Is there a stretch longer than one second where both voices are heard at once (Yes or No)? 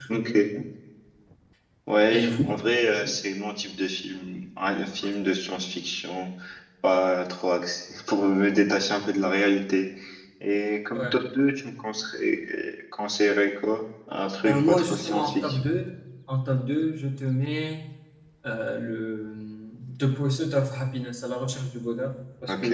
Yes